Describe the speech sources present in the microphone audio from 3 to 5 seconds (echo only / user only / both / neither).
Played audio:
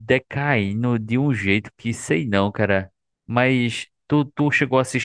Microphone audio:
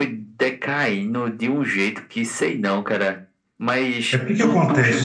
both